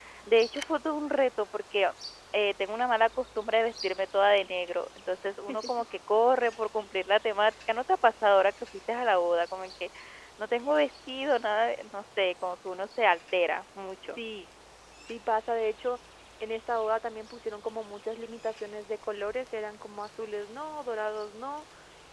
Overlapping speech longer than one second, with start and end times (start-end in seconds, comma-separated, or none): none